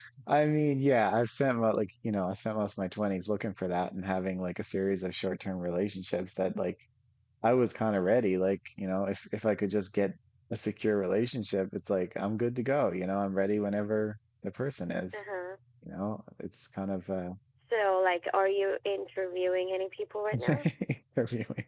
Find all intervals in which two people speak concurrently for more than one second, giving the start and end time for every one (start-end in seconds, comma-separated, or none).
none